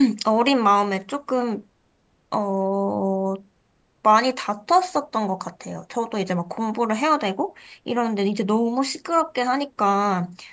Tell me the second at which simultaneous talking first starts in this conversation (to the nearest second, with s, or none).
none